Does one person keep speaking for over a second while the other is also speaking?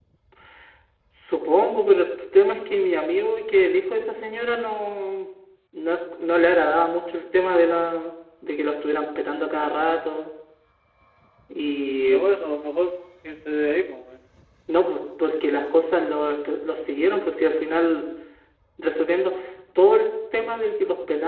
No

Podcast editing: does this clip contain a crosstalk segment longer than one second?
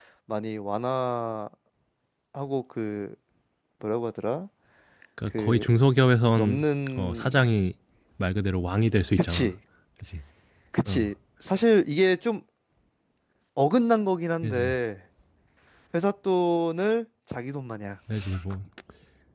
No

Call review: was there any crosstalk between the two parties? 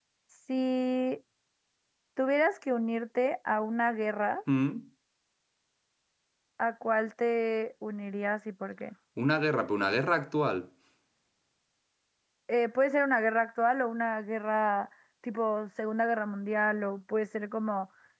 No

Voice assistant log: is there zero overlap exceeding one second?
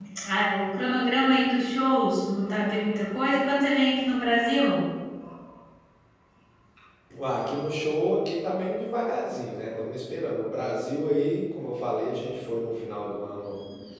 Yes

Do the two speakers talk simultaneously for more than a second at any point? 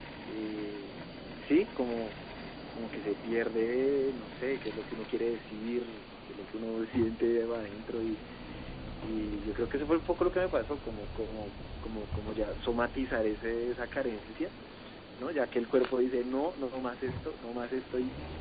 No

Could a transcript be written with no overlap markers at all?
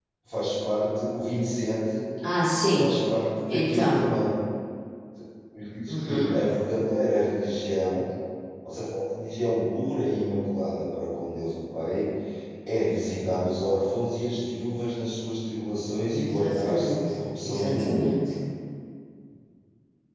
No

